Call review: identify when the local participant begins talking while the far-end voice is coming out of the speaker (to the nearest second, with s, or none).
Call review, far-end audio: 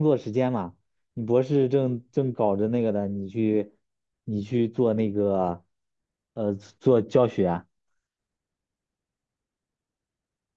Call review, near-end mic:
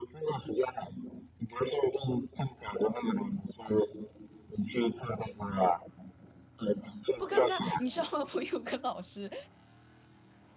7 s